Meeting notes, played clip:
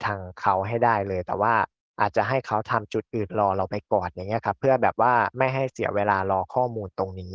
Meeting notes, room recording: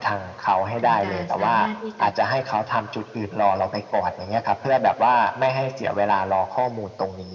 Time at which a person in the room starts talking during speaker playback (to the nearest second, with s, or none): 1 s